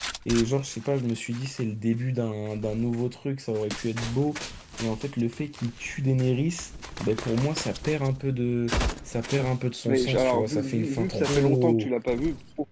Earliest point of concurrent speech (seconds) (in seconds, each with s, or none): 9.9 s